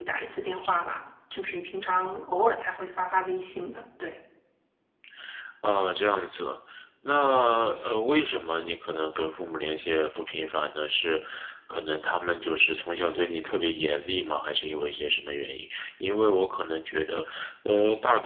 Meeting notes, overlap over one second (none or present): none